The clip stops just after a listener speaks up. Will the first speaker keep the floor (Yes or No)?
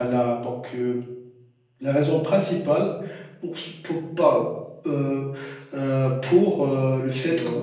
Yes